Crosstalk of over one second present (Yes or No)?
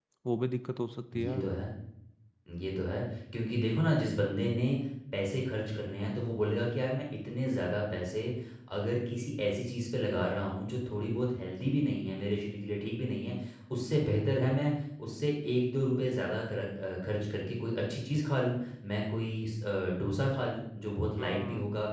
No